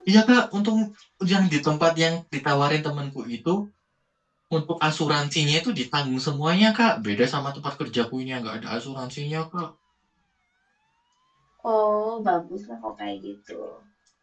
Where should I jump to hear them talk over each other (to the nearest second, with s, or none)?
none